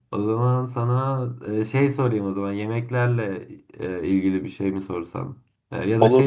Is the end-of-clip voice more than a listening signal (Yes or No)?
No